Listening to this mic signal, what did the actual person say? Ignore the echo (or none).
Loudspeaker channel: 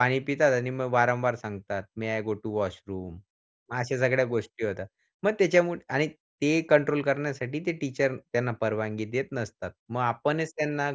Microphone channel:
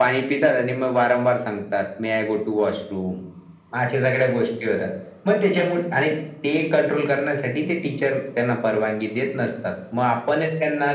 none